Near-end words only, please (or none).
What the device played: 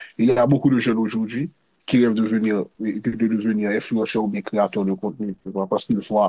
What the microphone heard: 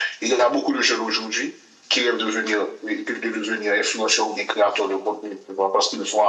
none